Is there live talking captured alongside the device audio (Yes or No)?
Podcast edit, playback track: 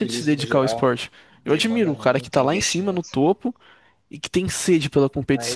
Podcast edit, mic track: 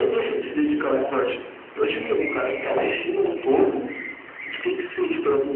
No